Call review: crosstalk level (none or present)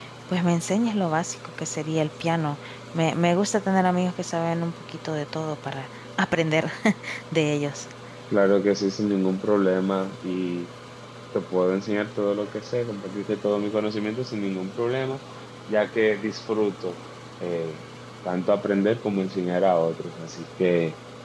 none